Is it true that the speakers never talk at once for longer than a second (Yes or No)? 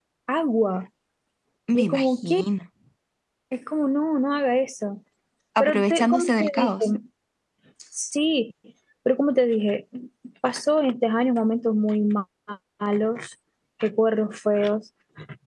No